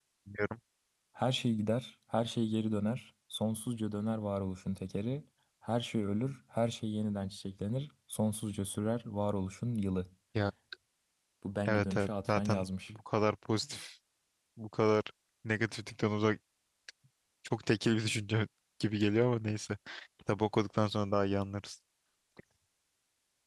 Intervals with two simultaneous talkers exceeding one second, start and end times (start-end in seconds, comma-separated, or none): 11.7-12.9